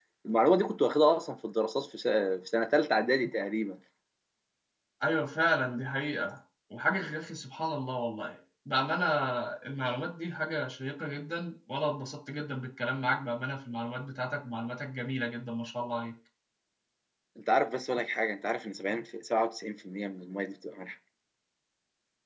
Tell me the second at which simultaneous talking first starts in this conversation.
none

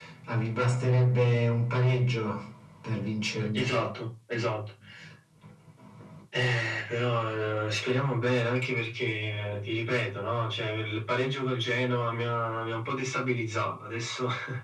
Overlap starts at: none

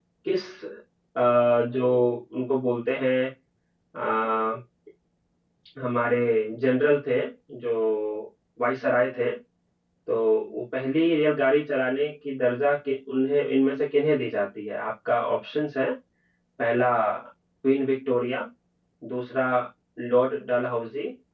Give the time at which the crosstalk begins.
none

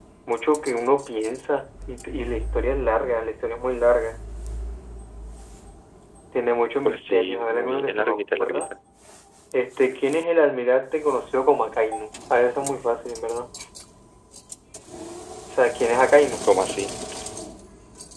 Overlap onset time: 6.8 s

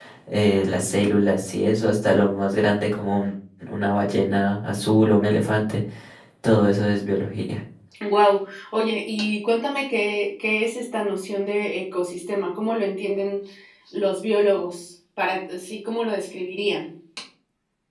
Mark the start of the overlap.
none

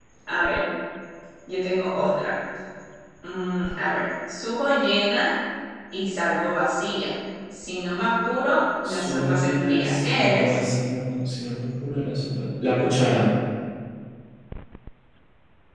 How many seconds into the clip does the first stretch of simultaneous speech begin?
8.8 s

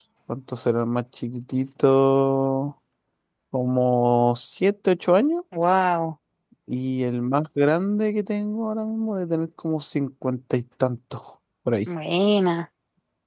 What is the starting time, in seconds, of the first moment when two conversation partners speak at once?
none

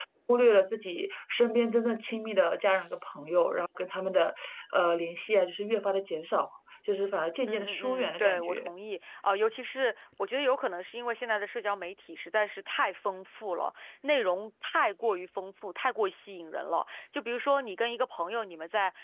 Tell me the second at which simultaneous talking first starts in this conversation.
7.5 s

